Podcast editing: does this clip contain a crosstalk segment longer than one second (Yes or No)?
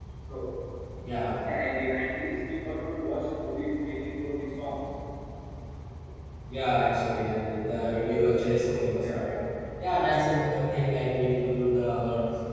No